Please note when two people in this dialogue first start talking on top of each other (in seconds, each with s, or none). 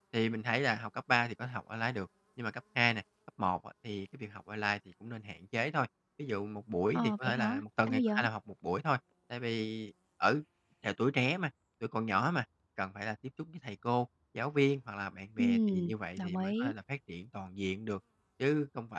6.9 s